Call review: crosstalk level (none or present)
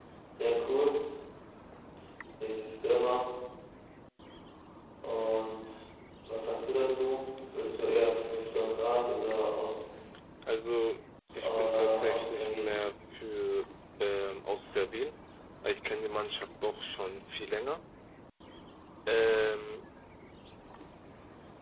present